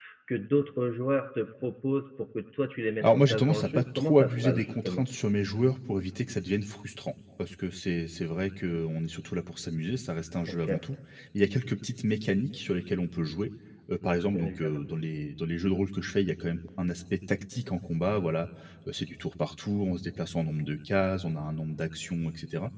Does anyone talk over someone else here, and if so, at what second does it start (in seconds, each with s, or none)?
3.0 s